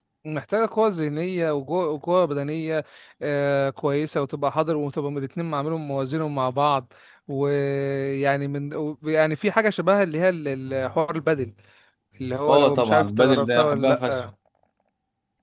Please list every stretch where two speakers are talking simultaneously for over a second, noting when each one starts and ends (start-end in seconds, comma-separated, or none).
12.5-14.2